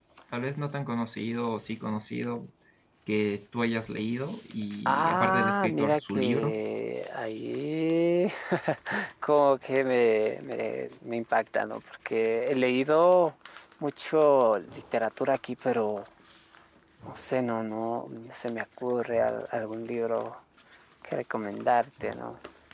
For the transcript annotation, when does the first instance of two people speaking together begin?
5 s

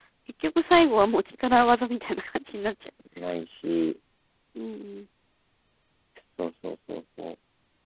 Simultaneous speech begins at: none

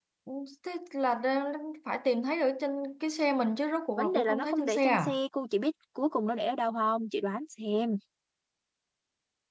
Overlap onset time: 4 s

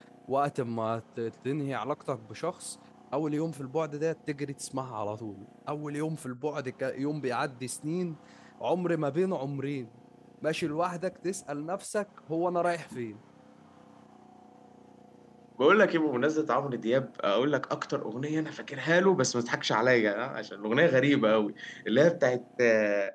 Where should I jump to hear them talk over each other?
none

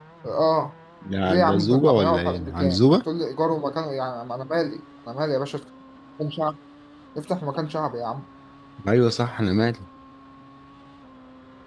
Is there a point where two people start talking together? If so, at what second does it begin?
1 s

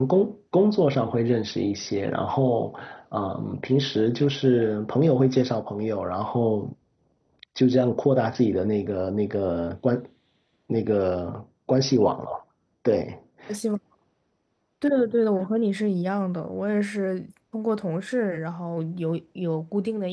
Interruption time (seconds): none

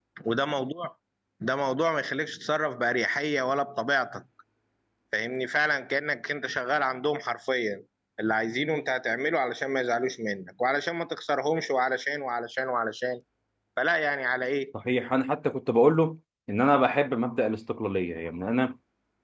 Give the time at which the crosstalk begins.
none

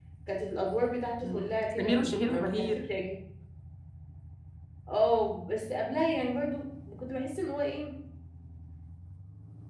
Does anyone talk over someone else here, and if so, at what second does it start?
1 s

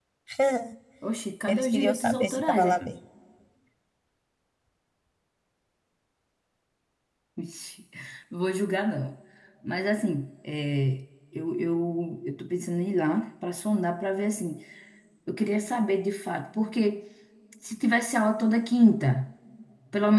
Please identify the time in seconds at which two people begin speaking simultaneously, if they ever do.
1 s

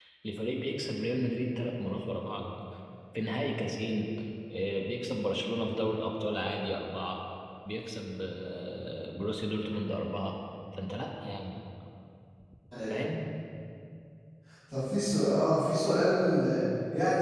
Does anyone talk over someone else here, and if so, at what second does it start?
none

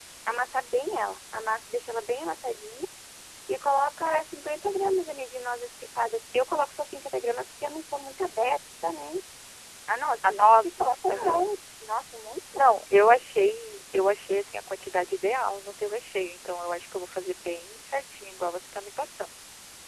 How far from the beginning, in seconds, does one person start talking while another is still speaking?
10 s

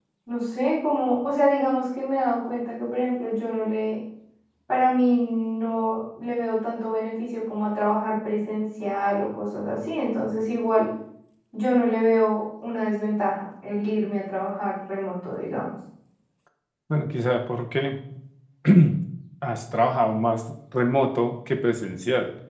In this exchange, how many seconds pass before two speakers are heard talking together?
none

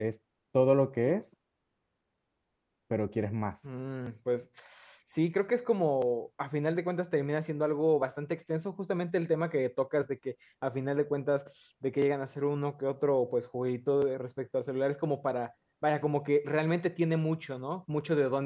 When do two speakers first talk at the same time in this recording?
none

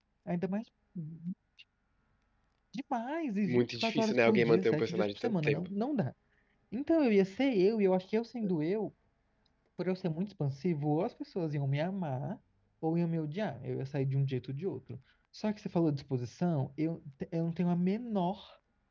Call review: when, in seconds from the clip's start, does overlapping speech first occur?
3 s

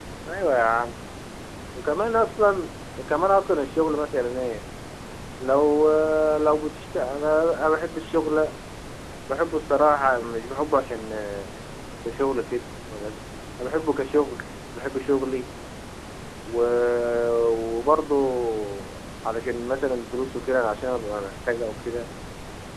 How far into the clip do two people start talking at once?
none

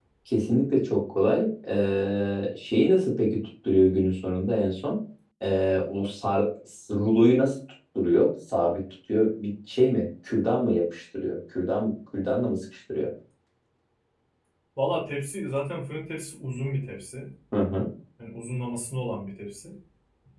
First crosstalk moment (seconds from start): none

